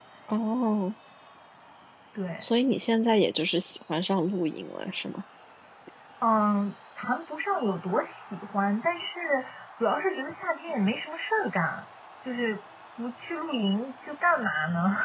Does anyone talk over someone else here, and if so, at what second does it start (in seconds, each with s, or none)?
none